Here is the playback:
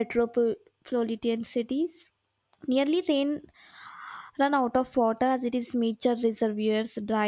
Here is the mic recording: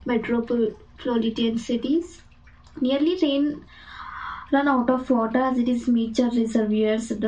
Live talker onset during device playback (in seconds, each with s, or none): none